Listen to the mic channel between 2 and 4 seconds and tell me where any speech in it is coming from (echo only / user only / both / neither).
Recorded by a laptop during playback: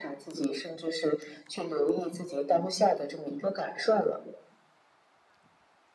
echo only